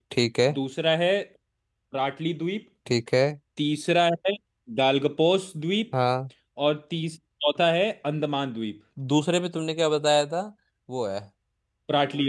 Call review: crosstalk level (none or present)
none